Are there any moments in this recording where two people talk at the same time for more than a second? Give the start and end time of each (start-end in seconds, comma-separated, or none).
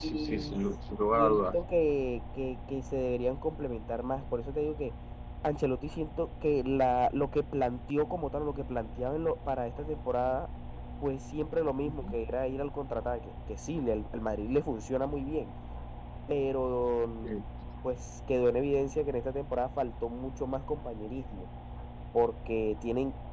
none